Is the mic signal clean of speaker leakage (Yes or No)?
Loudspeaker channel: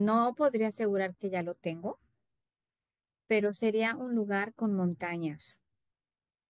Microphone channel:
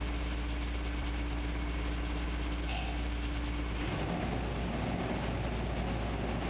Yes